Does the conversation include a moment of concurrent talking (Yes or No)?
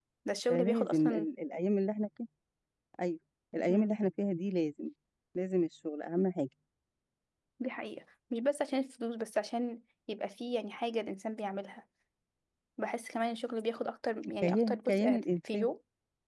Yes